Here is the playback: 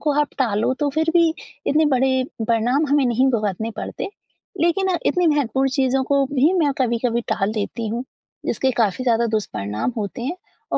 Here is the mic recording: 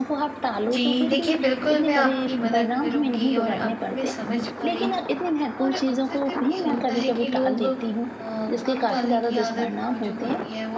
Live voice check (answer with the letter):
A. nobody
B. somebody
B